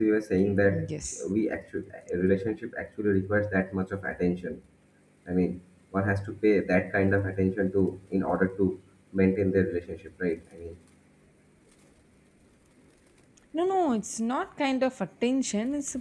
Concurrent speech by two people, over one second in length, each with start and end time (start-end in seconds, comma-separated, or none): none